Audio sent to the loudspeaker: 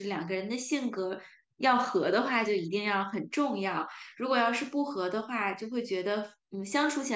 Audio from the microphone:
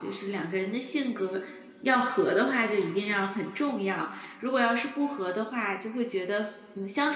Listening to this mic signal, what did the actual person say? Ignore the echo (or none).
none